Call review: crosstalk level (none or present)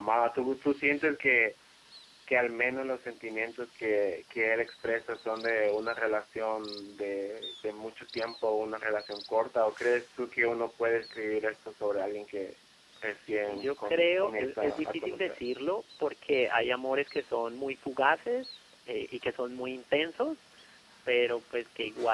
present